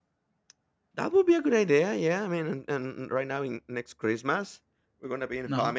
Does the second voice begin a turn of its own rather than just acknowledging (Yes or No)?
No